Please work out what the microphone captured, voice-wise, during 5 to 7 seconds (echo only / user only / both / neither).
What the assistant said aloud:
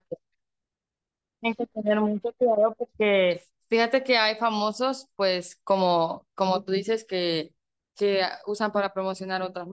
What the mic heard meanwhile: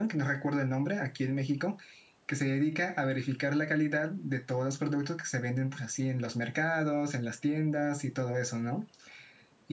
user only